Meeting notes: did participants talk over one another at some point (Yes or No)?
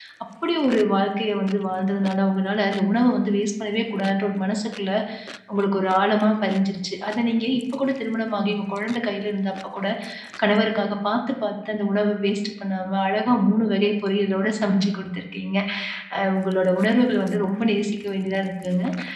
No